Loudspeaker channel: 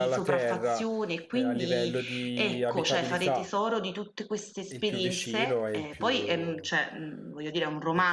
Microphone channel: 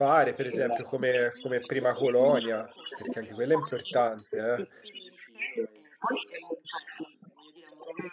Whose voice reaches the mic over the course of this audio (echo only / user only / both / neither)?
both